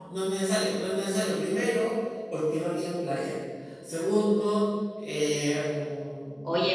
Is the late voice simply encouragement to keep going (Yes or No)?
No